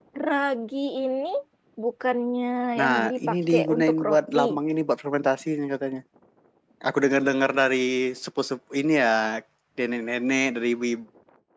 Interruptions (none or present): present